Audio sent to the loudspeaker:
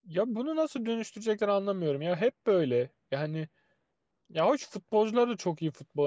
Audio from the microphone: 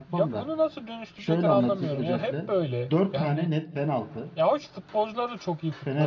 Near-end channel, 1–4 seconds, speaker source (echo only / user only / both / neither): both